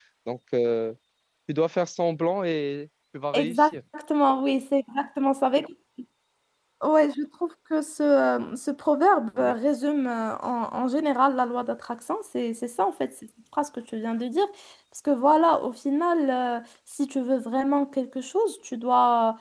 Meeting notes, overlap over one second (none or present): none